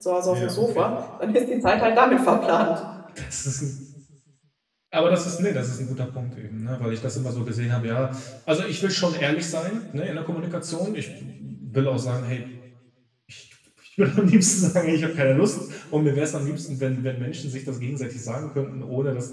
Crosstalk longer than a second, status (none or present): none